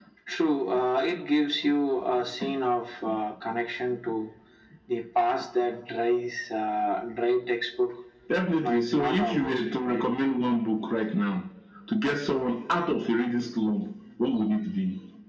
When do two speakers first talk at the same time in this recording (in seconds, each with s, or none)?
8.6 s